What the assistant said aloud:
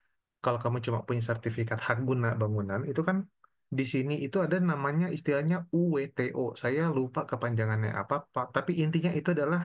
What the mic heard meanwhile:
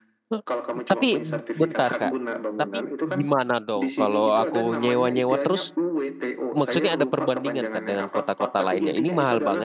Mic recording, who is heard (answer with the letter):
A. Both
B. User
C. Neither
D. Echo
A